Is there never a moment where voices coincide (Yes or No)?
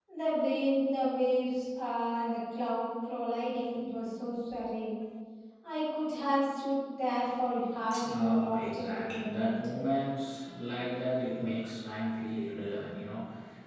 No